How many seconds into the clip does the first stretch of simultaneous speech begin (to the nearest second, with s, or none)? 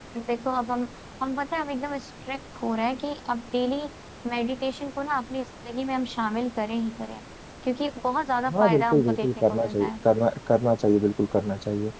8 s